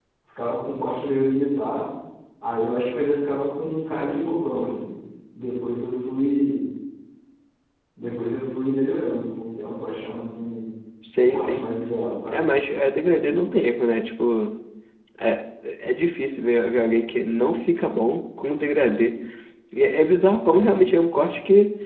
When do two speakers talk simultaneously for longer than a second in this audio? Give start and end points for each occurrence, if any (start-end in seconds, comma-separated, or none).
none